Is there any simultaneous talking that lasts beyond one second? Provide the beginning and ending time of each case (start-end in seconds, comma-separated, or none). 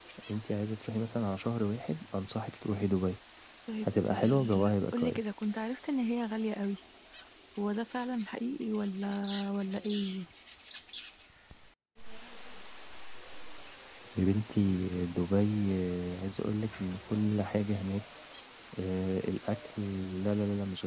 3.8-5.3